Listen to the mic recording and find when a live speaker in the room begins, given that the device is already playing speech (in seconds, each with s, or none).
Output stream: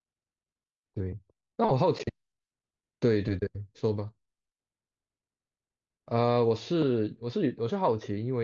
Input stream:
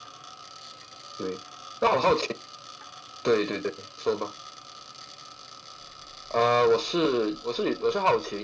none